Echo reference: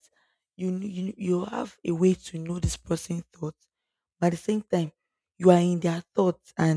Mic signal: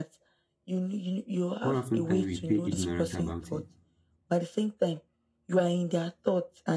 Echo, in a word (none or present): present